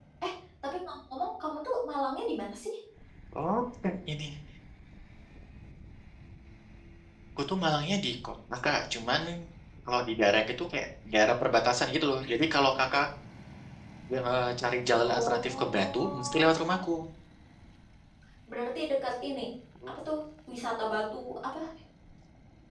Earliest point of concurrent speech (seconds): 15.0 s

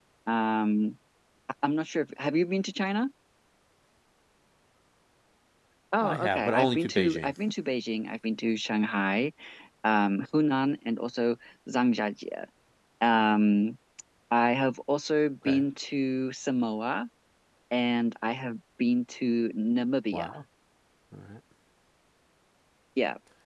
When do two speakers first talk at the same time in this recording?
6.0 s

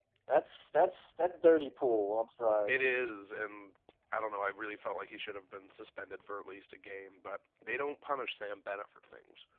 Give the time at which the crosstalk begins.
none

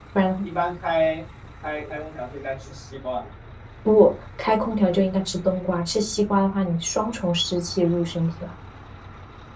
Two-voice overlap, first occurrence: none

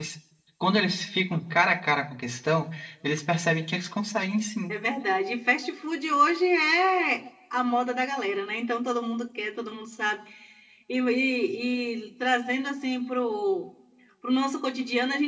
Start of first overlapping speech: none

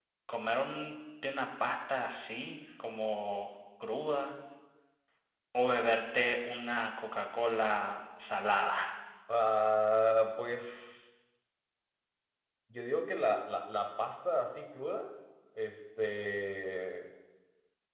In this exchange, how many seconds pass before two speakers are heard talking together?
none

